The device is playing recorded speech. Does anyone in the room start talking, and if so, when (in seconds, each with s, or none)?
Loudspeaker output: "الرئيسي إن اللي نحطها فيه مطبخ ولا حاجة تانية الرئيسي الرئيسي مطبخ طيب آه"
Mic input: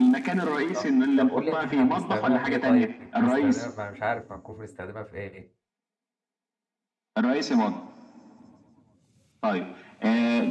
0.7 s